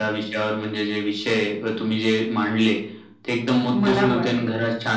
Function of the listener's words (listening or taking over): listening